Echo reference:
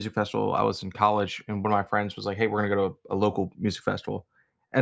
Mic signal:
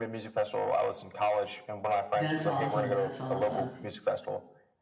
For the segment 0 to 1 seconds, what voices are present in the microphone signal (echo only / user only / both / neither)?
echo only